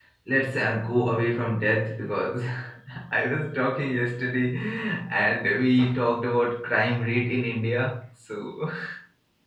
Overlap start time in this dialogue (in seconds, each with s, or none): none